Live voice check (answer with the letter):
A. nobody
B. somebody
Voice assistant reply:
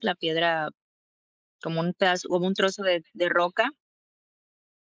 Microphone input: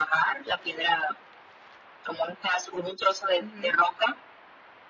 B